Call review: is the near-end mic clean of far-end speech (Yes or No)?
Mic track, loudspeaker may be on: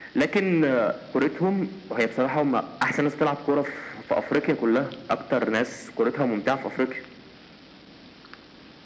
No